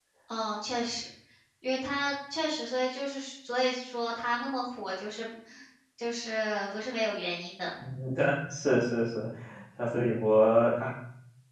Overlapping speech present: No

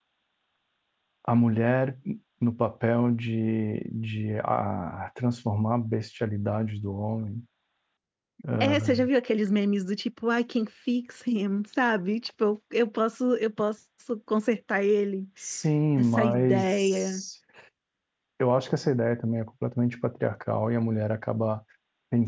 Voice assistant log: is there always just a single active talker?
No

